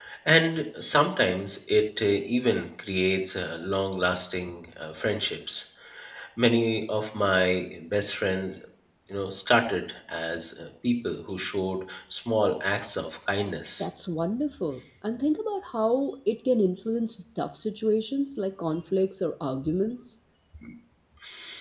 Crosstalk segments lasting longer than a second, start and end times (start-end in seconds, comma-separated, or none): none